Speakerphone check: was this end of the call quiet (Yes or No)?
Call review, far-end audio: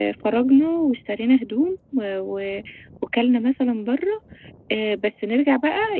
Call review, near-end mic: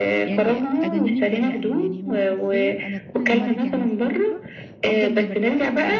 No